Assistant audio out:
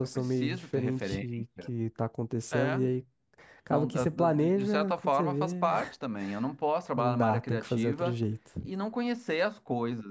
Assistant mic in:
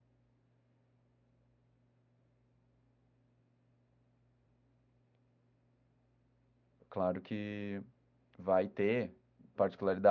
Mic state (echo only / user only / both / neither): user only